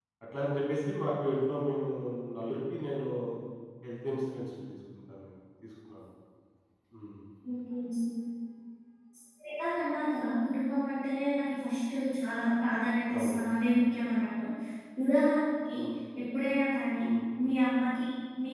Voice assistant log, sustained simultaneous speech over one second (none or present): none